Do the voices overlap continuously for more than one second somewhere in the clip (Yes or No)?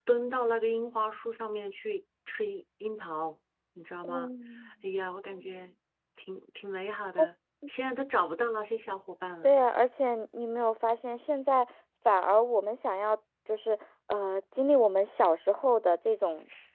No